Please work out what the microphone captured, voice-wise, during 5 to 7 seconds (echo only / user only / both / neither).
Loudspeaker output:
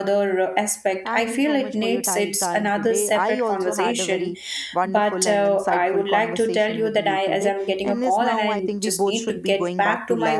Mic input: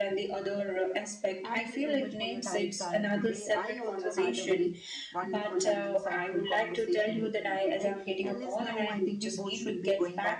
echo only